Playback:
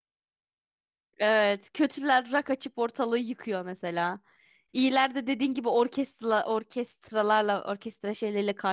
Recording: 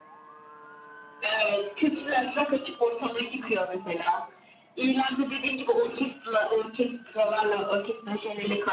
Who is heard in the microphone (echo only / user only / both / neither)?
echo only